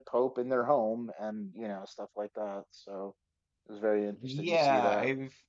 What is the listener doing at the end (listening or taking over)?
taking over